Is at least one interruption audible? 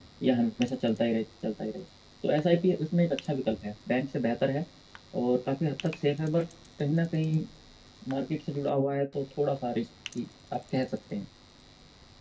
No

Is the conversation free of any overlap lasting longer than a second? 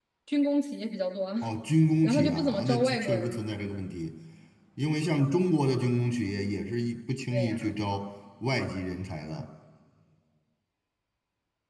No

